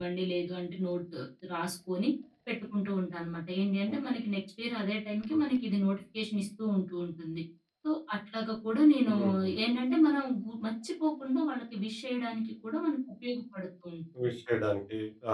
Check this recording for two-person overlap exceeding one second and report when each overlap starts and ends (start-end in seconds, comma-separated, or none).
none